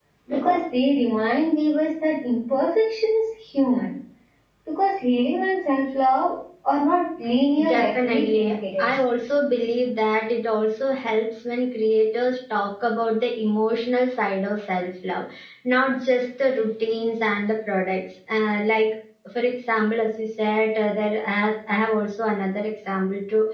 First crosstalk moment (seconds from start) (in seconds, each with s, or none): 7.5 s